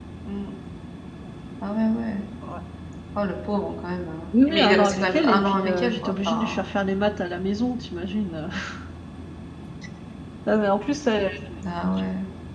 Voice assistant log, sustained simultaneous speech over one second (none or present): present